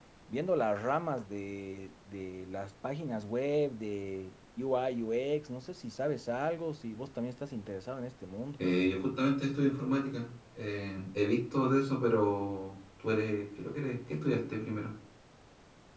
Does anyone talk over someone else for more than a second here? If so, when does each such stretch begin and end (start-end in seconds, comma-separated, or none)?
none